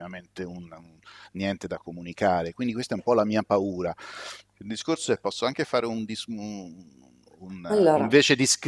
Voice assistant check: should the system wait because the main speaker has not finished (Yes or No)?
Yes